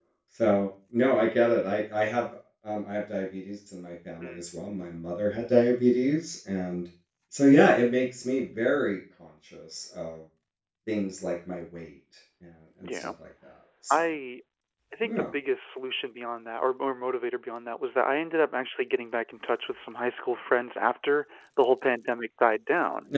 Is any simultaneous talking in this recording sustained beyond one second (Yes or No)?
No